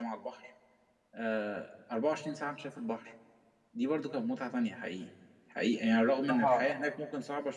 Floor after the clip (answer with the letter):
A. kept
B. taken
A